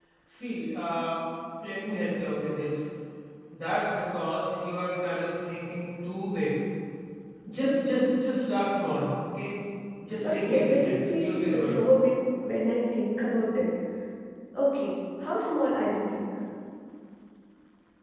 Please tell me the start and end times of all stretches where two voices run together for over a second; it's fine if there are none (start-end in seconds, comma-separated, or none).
10.2-11.7